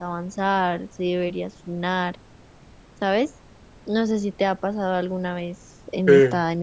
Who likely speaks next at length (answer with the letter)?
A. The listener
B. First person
B